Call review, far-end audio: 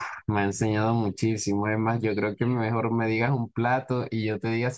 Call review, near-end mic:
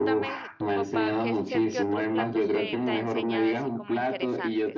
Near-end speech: present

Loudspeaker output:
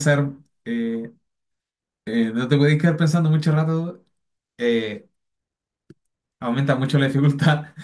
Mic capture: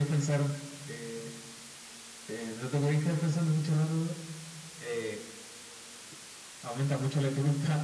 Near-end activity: none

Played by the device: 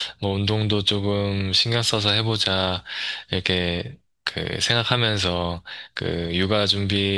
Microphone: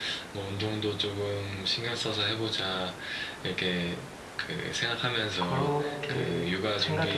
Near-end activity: present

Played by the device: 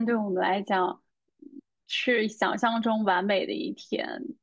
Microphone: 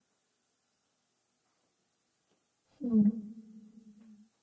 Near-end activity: present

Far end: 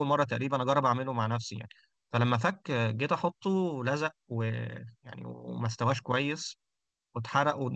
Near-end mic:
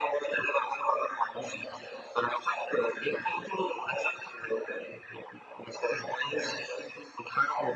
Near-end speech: none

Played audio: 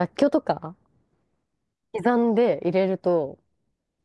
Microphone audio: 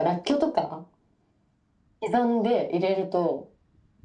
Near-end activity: none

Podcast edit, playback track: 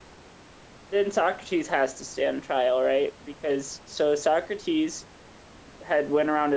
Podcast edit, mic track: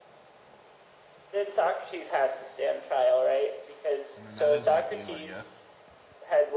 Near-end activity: present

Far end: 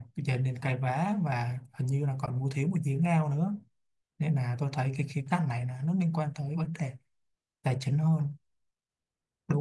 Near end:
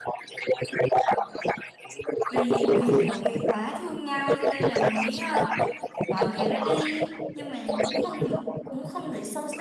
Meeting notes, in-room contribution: present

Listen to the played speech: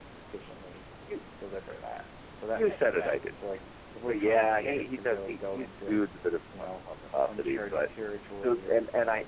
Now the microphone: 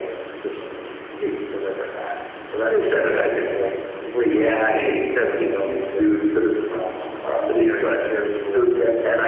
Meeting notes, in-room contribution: none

